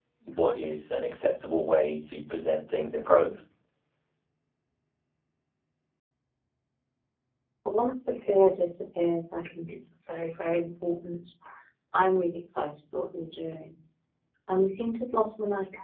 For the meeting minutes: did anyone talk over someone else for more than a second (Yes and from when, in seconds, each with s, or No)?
No